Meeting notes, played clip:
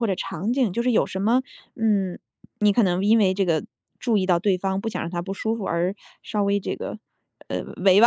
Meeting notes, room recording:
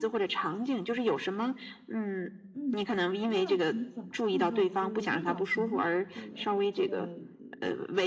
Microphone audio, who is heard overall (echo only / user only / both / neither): both